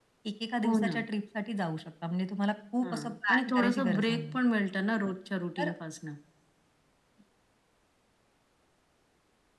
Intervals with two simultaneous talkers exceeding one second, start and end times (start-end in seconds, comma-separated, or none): 2.8-4.4